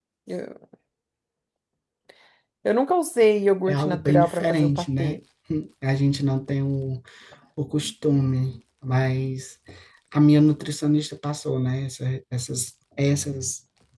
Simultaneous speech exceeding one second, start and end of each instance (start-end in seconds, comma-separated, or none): 3.7-5.2